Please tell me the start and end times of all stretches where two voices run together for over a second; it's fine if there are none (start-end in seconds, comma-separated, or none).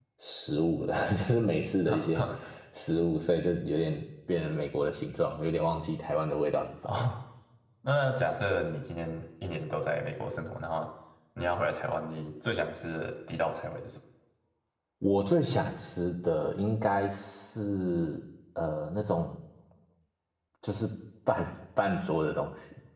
none